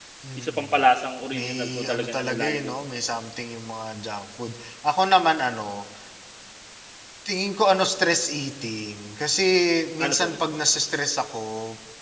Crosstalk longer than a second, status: present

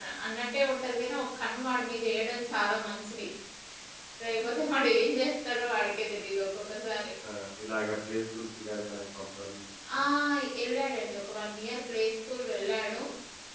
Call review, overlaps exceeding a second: none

